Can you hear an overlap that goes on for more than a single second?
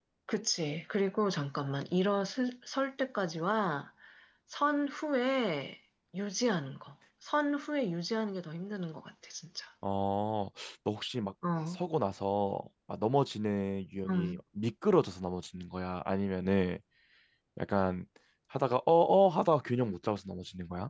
No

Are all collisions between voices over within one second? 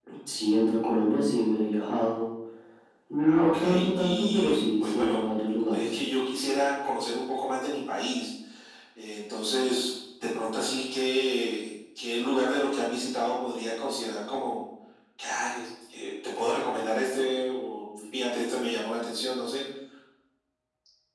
No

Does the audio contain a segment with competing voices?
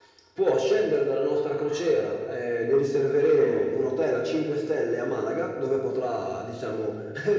No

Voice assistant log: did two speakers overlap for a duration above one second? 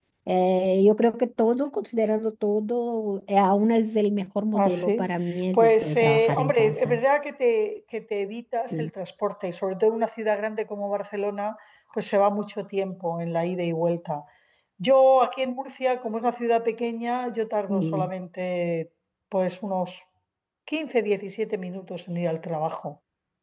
Yes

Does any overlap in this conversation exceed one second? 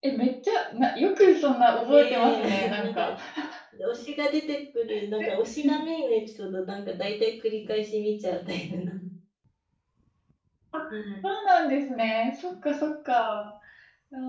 Yes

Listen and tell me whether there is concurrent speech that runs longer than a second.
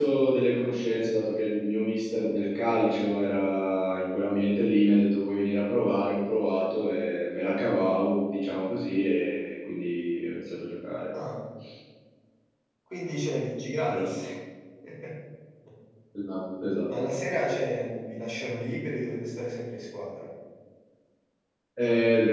No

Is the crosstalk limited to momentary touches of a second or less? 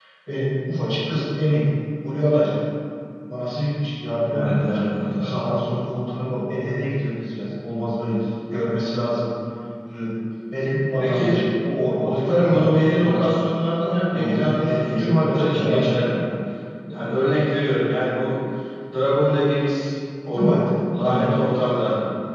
No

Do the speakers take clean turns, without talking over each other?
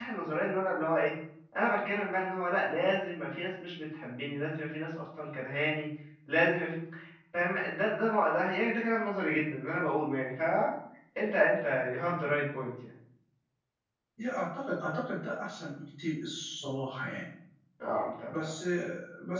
Yes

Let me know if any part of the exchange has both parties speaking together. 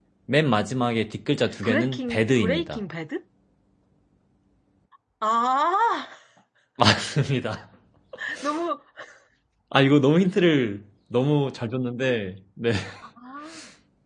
Yes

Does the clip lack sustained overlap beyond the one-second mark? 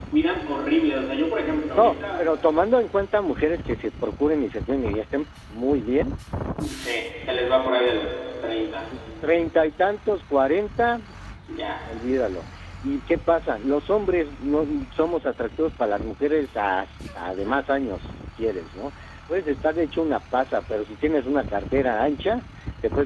Yes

